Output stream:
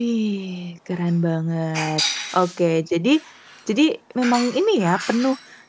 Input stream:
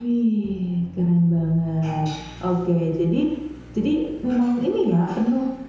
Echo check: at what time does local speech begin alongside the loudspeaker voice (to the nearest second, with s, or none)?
none